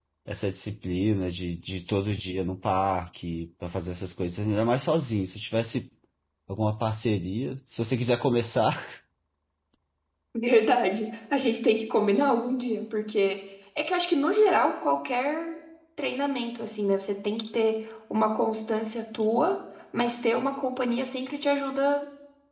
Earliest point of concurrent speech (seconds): none

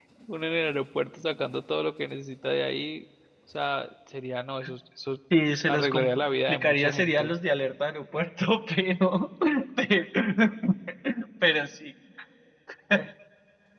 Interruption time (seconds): 6 s

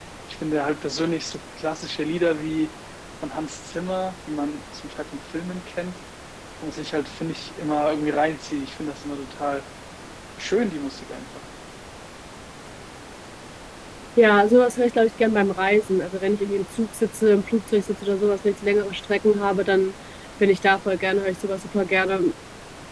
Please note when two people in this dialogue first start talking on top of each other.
none

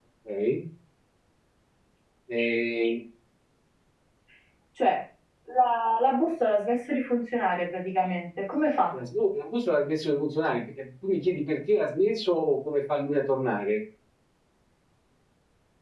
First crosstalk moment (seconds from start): none

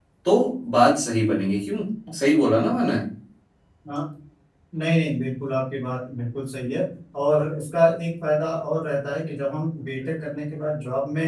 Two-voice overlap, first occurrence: none

